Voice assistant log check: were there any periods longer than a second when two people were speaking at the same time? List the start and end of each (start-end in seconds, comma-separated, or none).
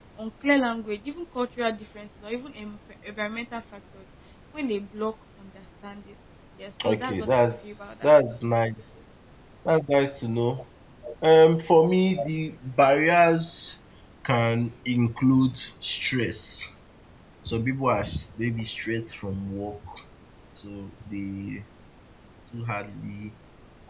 6.8-8.1